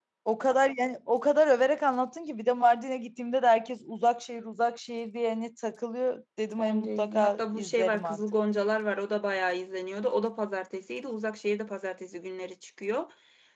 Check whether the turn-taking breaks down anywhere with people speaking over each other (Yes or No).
Yes